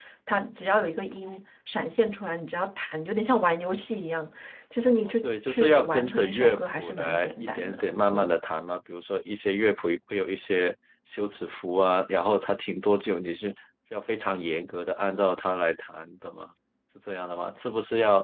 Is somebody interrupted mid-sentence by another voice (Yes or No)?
Yes